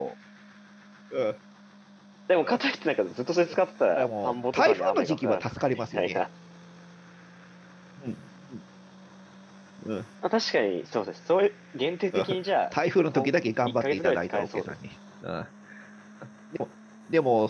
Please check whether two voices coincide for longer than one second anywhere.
Yes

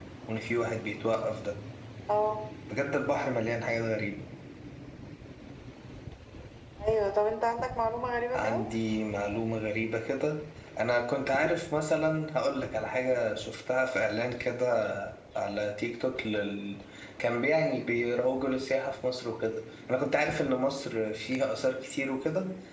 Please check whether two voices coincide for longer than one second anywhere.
No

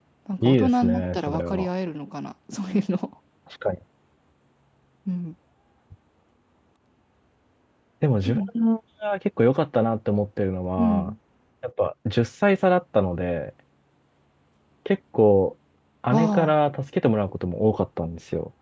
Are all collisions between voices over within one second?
No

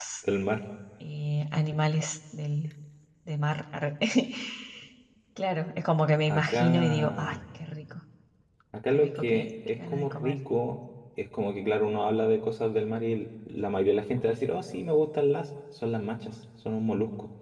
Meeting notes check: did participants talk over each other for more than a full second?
Yes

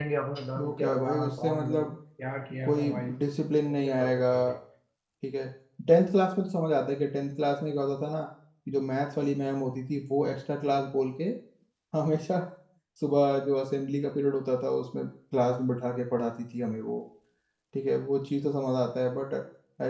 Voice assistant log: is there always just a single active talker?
No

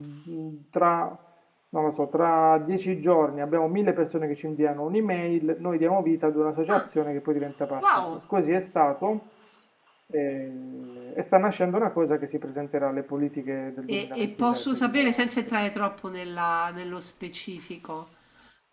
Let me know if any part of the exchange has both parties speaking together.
Yes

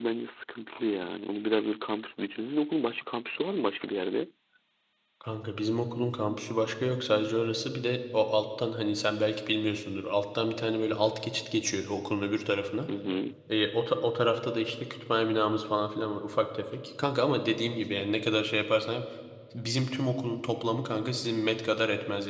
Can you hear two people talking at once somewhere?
No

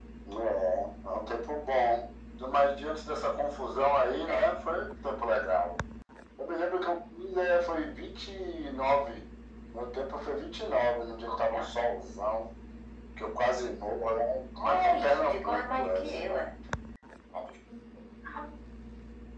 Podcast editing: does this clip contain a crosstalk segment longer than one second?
Yes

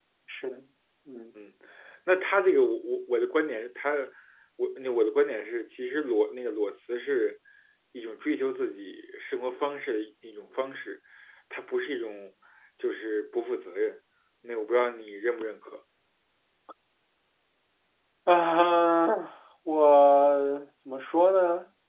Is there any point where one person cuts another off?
No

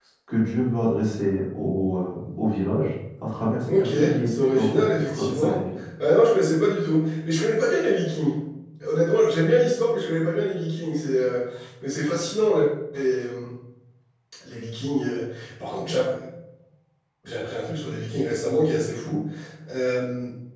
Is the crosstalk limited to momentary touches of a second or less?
No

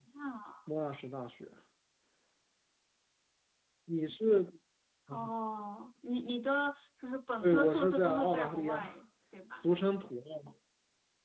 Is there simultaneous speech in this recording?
Yes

